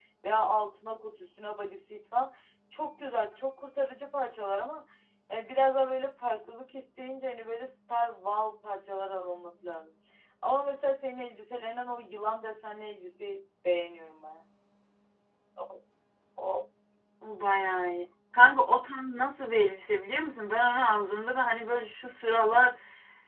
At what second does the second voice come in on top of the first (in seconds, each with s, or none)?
none